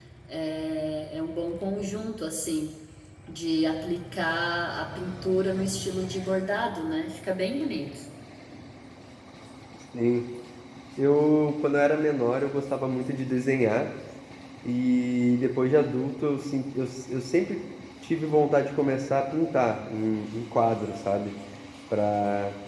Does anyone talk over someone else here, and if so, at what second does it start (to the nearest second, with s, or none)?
none